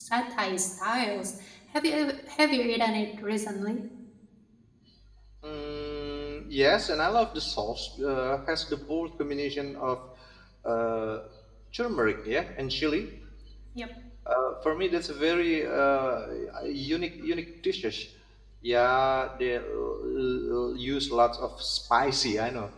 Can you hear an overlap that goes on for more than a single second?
No

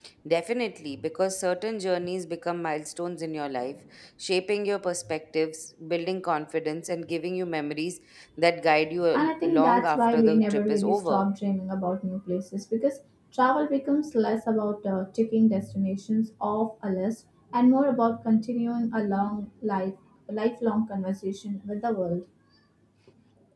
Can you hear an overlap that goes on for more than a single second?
Yes, from 9.1 s

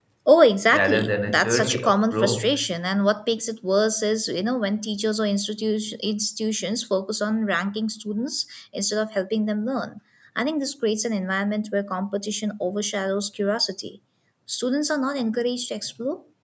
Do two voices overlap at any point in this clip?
Yes, from 0.7 s

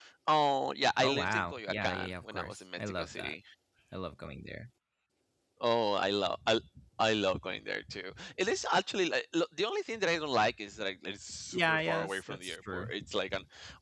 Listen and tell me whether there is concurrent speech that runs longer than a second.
Yes, from 1.0 s

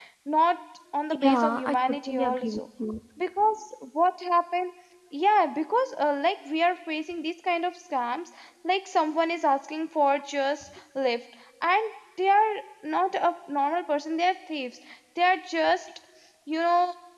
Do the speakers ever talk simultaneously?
Yes, from 1.2 s

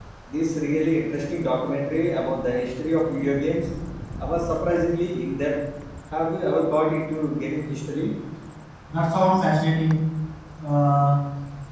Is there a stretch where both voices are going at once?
No

